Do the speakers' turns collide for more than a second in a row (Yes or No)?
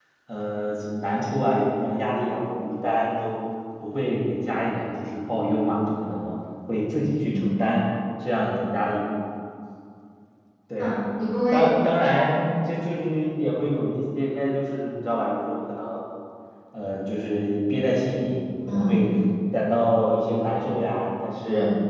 No